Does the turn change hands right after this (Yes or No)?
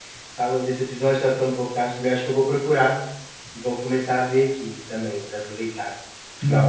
Yes